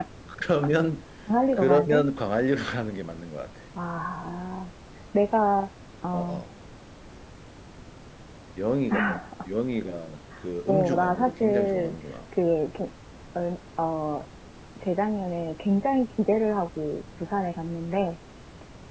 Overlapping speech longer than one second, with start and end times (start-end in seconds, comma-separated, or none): 10.7-11.9